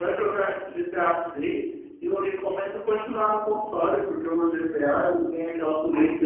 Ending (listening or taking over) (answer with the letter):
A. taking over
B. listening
B